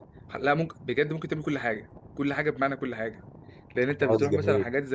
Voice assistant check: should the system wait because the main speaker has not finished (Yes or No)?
Yes